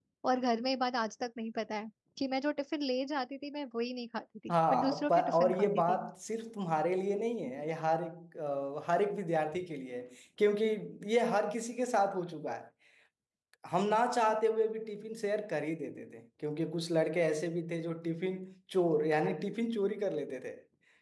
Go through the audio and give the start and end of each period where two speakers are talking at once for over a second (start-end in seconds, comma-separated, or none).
4.5-6.1